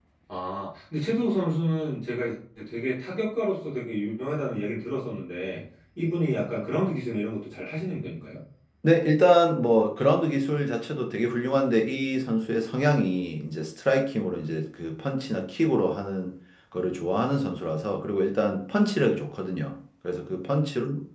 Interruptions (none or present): none